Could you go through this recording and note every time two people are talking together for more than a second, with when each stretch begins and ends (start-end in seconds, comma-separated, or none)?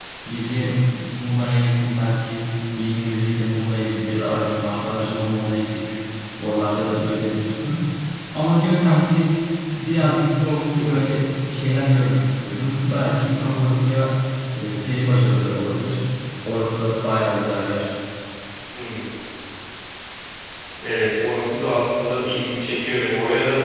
none